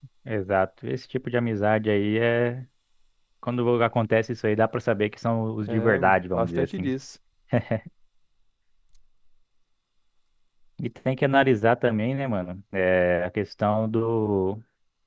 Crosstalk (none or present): present